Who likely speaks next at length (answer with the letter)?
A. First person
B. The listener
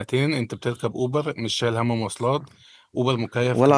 B